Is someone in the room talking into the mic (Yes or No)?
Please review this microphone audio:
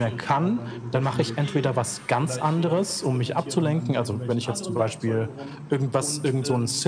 Yes